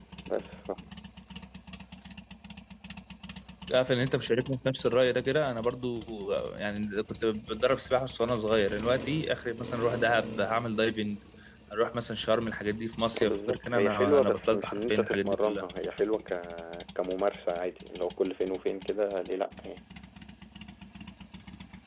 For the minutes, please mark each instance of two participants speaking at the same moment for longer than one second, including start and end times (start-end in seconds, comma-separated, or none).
13.1-15.6